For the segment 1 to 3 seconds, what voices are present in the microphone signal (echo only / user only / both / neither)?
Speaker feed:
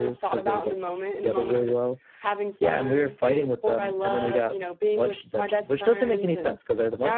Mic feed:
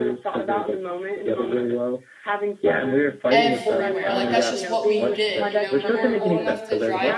echo only